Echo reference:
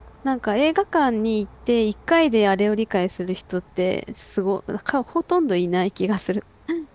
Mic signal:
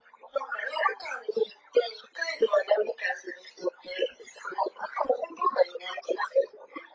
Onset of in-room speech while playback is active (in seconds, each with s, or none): none